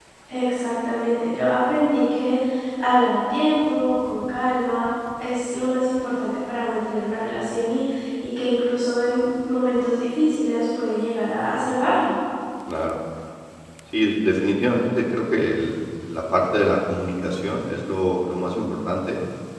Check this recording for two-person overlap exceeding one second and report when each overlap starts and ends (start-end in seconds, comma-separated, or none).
none